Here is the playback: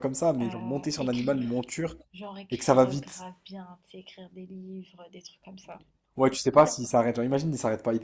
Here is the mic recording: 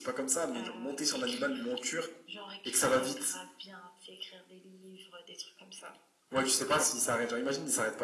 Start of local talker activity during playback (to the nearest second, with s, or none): none